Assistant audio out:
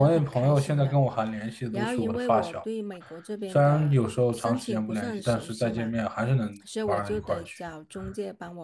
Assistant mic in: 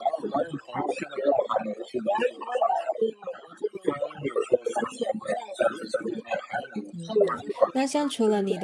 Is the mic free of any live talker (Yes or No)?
No